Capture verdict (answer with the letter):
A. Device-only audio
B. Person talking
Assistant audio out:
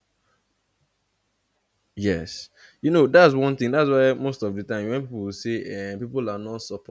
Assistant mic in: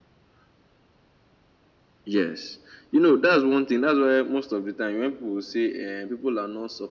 A